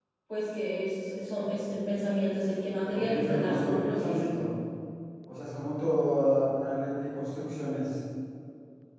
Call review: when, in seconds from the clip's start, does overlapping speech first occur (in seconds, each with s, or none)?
2.9 s